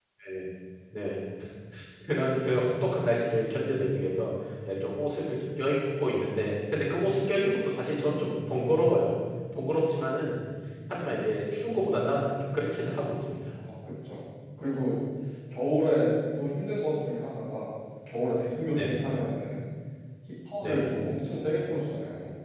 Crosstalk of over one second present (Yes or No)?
No